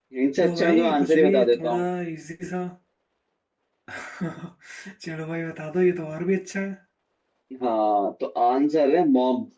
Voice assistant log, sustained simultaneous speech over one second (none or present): present